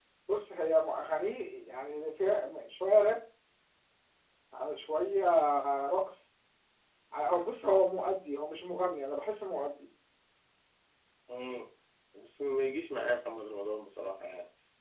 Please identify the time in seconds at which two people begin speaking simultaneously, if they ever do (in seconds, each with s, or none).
none